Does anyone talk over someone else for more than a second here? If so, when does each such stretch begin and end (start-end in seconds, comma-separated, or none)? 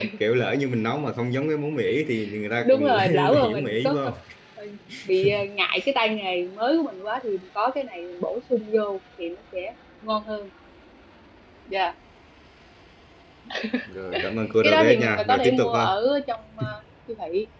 2.6-4.0, 14.6-15.9